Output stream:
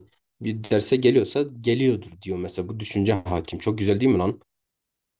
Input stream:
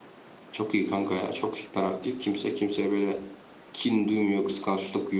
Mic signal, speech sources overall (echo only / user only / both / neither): user only